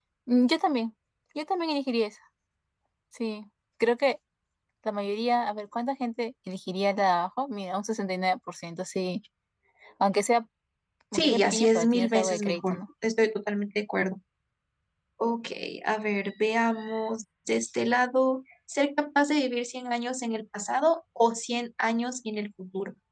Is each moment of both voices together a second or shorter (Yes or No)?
No